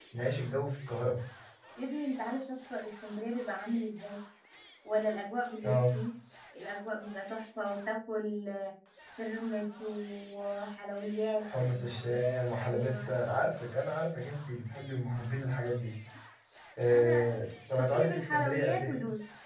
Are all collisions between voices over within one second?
No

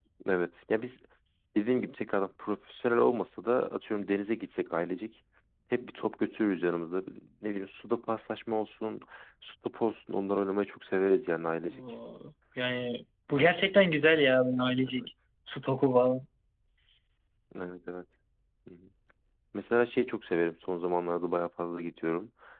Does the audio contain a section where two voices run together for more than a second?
No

